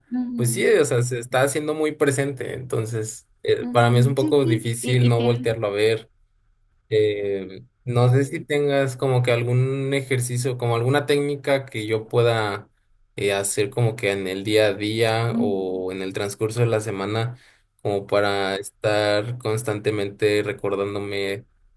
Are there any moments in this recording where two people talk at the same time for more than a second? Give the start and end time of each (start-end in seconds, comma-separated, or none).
3.6-5.6